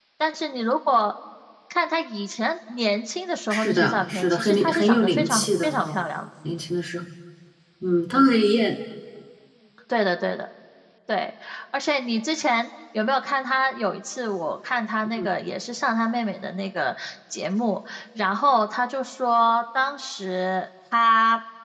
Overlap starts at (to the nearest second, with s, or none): 3 s